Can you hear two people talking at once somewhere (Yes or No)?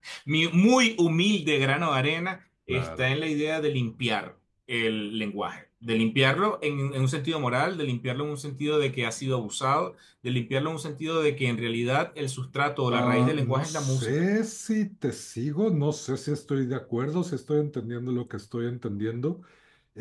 Yes